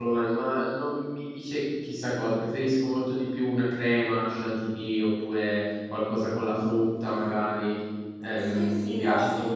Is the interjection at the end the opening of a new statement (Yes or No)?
Yes